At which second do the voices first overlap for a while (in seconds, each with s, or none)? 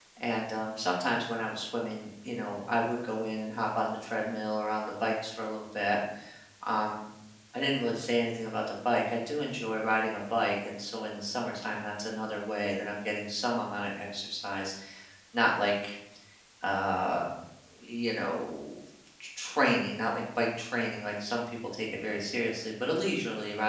none